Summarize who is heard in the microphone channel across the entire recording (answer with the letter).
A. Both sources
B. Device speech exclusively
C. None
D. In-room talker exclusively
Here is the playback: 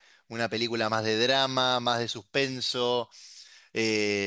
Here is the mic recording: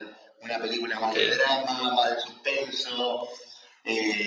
A